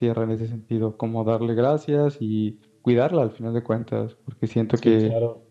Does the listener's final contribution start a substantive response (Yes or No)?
Yes